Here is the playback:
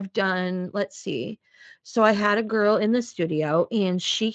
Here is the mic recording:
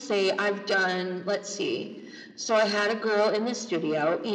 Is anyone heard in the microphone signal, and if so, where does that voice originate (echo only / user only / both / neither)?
echo only